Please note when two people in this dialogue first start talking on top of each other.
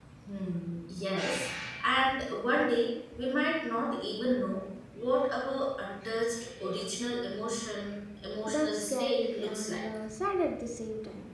8.5 s

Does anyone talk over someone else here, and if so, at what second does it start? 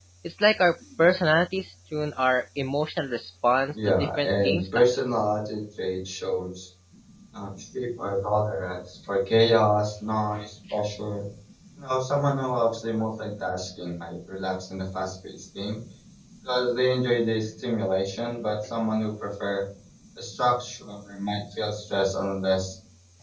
3.7 s

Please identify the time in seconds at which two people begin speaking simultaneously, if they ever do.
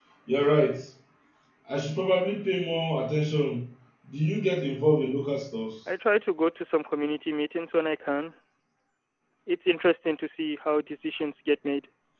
none

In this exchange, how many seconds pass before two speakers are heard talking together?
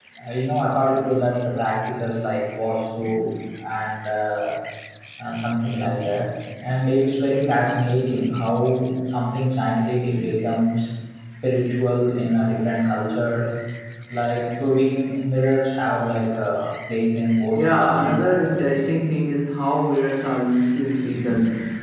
17.6 s

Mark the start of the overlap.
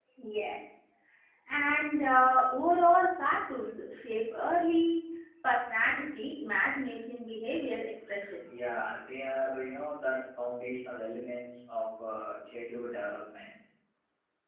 none

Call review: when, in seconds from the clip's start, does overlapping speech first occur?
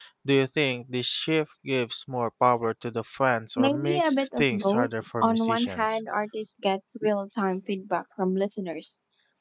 3.6 s

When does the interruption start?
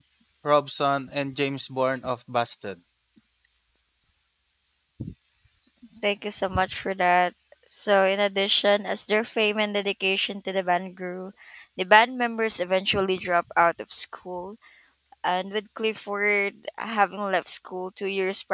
none

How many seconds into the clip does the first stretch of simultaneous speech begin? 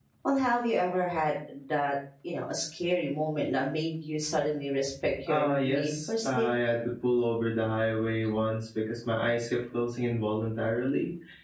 5.3 s

